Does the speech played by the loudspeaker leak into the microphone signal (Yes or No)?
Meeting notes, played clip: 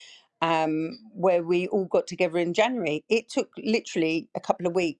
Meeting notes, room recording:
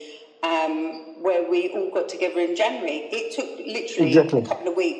Yes